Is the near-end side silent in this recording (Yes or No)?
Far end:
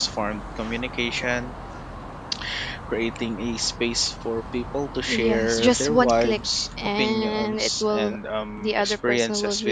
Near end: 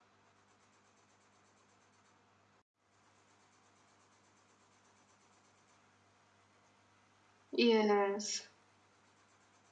No